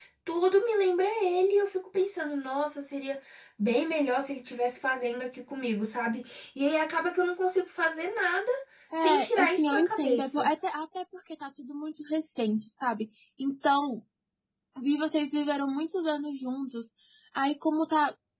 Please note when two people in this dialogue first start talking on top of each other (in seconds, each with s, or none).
9.0 s